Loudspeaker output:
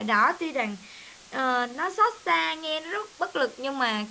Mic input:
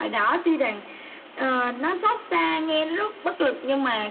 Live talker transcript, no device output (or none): none